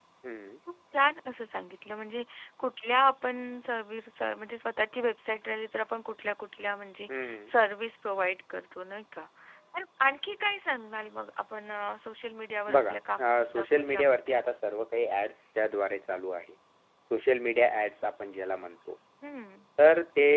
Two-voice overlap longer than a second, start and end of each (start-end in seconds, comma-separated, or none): 12.8-14.4